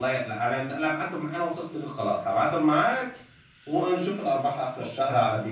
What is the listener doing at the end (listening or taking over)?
taking over